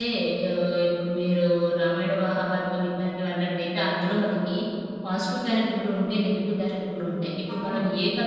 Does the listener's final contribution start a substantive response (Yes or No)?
No